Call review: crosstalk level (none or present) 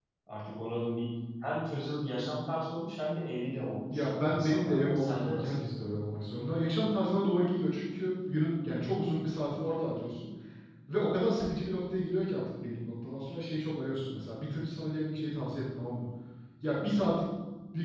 present